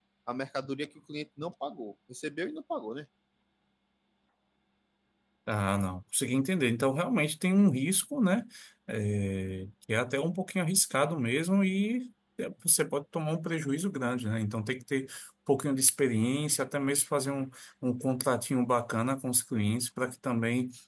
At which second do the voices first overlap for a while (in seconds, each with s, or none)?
none